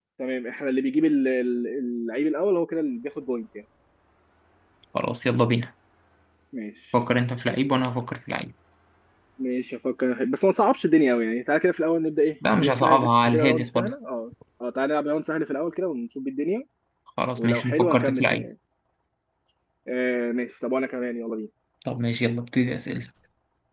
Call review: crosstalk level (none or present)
present